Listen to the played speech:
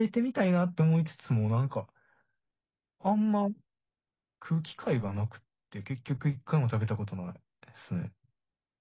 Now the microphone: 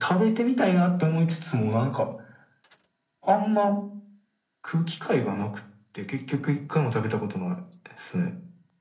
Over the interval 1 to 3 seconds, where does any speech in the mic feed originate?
echo only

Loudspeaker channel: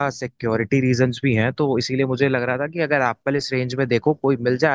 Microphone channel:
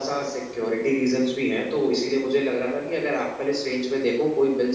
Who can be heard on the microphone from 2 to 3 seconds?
echo only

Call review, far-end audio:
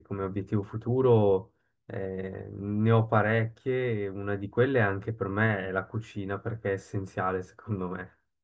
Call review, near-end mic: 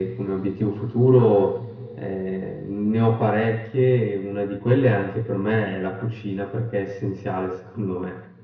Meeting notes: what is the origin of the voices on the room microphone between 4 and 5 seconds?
echo only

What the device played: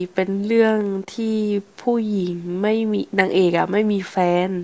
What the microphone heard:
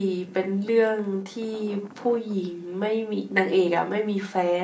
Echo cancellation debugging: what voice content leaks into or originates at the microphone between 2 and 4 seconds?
echo only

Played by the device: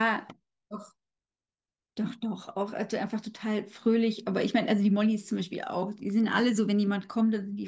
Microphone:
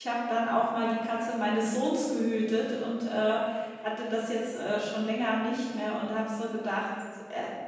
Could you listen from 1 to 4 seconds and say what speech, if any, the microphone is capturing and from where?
user only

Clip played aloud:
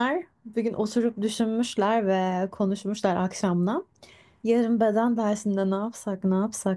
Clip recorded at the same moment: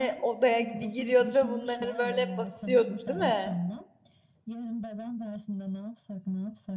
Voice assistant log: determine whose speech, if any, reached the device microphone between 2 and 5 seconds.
both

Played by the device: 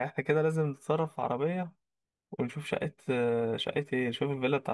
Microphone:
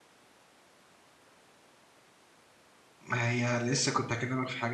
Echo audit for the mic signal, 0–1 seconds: neither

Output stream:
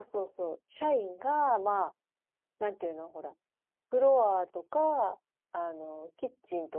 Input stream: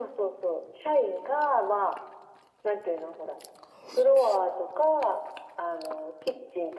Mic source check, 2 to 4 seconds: echo only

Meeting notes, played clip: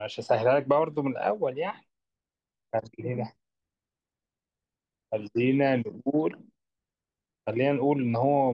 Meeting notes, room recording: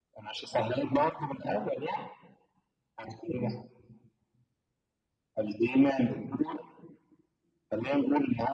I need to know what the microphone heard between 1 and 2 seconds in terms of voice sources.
echo only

